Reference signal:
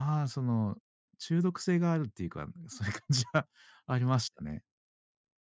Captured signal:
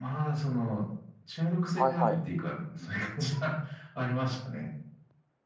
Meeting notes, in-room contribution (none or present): present